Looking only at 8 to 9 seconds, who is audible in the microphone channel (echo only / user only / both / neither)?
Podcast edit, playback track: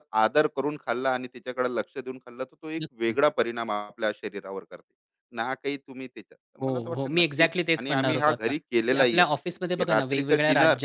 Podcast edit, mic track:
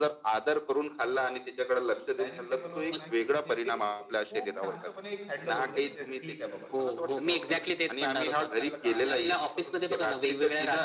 both